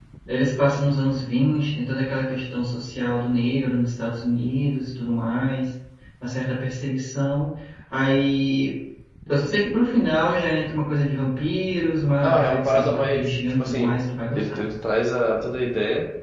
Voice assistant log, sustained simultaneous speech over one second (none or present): present